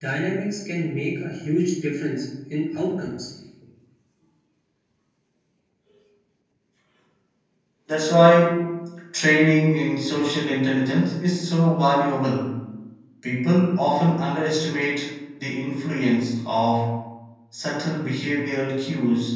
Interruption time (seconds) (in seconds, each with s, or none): none